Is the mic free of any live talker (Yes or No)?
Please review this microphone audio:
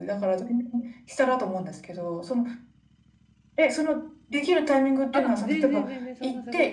No